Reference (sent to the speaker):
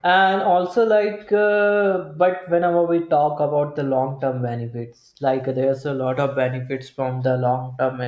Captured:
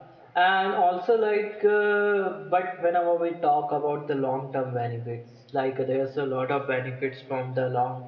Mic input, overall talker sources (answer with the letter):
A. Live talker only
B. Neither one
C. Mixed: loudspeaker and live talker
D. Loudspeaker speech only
D